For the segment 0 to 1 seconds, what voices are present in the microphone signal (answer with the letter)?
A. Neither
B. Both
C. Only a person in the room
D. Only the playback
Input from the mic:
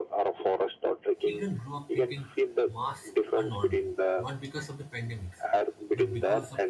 D